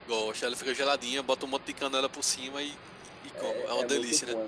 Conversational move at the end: taking over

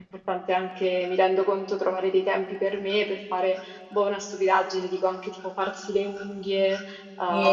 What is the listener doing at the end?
taking over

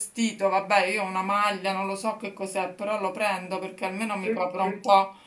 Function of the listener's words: listening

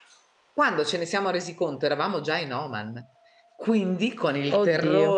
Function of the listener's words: listening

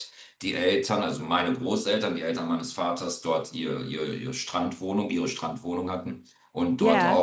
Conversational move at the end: listening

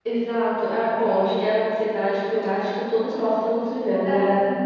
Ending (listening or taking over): listening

